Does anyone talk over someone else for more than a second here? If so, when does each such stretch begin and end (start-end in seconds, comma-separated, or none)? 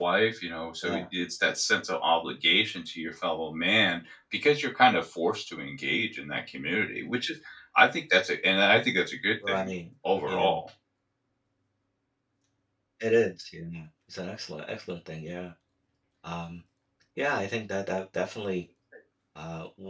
none